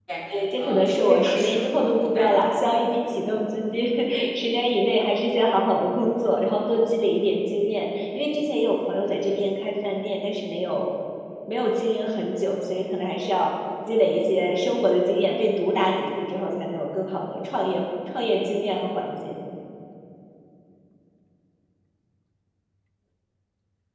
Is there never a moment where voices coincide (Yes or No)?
No